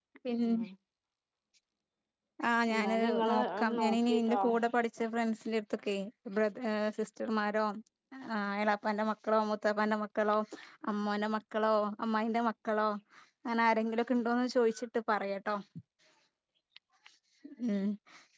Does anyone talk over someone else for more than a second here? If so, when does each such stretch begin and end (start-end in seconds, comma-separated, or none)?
2.7-4.4